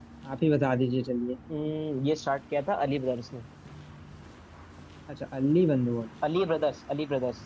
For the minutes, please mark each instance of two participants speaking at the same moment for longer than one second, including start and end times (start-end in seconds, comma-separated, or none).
none